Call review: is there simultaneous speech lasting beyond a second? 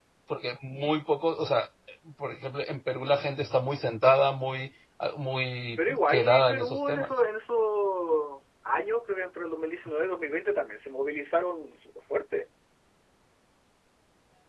Yes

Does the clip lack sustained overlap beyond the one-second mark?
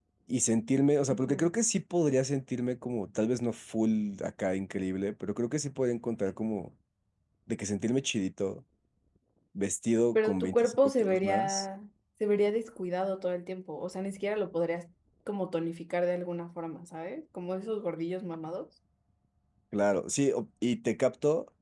No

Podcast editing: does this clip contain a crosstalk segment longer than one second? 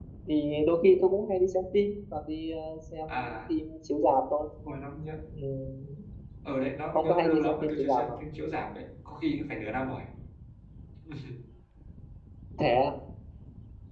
Yes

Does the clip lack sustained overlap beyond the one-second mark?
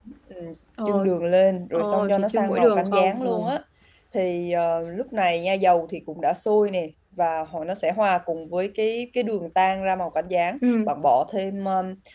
No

